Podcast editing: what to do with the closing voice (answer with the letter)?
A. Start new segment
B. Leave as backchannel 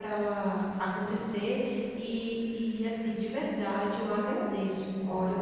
B